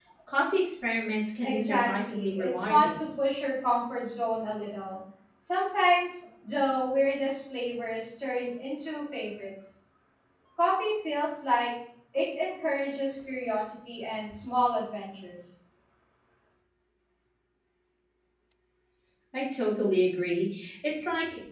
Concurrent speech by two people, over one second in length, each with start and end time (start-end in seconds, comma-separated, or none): 1.4-3.0